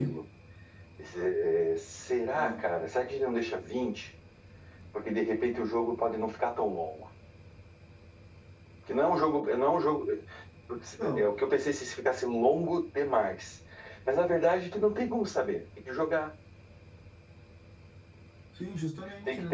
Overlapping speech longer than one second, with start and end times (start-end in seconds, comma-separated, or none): none